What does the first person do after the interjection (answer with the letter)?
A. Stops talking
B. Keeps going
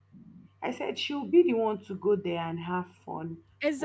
A